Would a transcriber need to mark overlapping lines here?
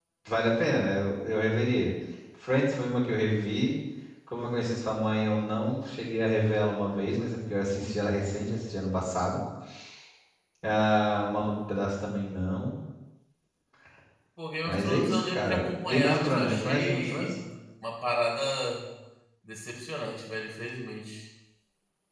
Yes, from 14.7 s

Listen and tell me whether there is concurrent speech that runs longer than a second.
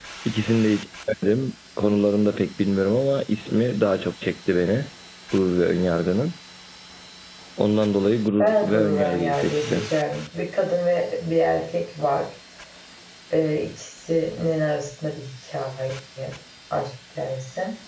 Yes, from 8.4 s

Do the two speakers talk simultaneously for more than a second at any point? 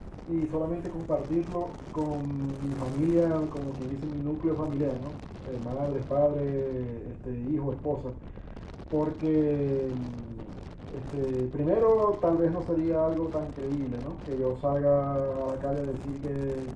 No

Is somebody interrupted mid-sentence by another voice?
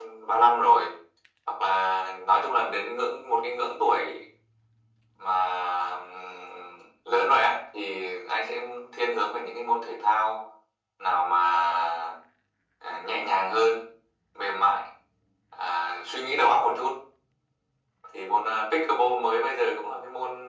No

